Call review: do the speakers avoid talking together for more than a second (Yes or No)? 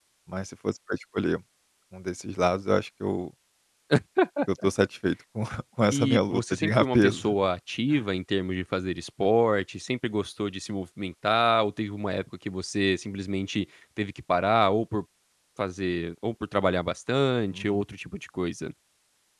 No